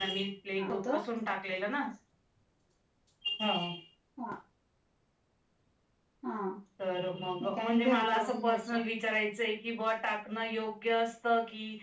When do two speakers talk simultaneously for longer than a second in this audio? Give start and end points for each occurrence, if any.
7.4-8.8

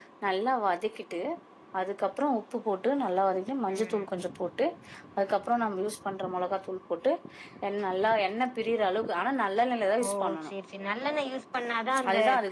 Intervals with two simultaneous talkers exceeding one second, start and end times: none

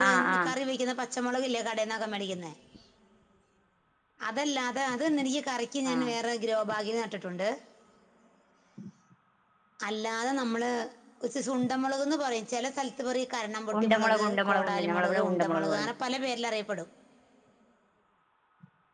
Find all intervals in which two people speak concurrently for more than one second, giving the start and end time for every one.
13.8-15.9

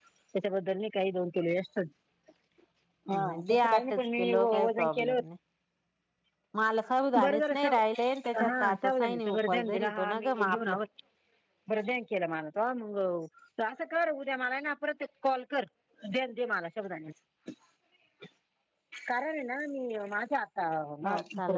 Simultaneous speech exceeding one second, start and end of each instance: 3.1-5.2, 7.2-10.8

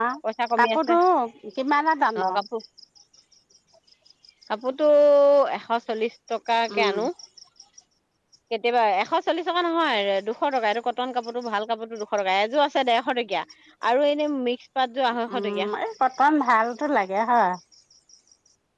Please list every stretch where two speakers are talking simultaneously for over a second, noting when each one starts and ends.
none

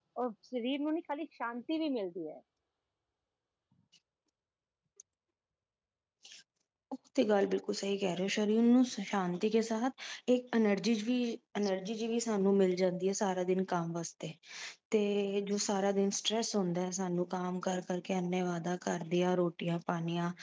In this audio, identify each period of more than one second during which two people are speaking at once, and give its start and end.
none

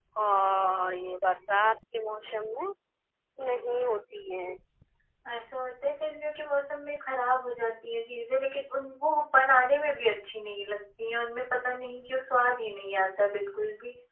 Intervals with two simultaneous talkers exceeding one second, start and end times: none

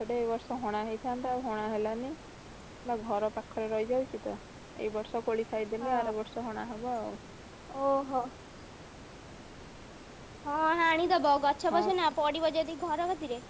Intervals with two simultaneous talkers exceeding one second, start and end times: none

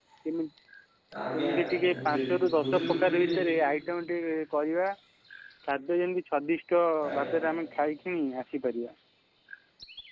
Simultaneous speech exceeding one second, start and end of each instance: 1.3-3.2

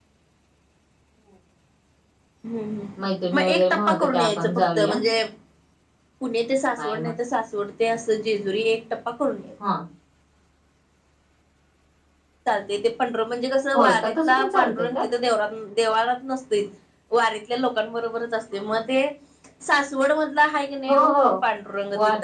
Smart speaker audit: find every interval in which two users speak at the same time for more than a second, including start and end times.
3.4-5.0, 13.7-15.0

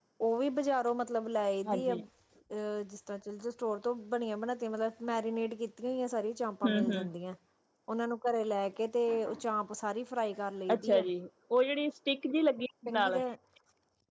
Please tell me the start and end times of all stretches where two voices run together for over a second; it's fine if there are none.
none

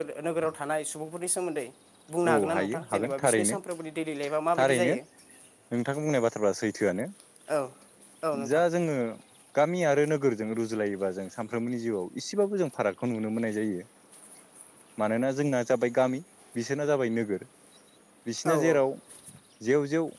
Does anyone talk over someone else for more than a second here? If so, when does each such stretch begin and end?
2.3-3.5

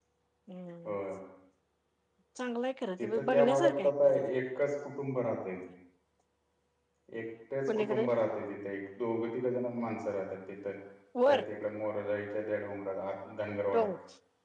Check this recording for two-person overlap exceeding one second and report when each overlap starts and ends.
3.0-4.2

